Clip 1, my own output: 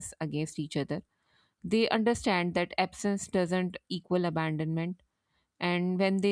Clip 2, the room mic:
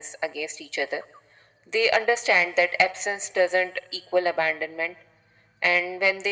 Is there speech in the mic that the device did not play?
No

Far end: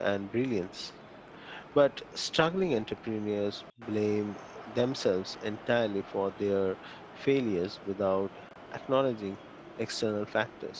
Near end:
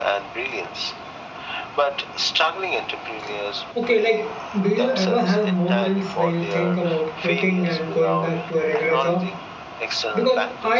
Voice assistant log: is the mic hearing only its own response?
No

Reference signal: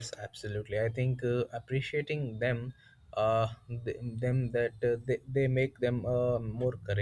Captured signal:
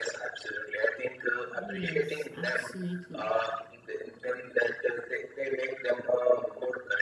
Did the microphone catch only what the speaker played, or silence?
No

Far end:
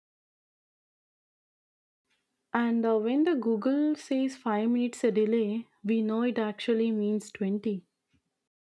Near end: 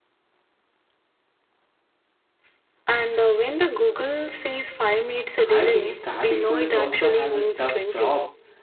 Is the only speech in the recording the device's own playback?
No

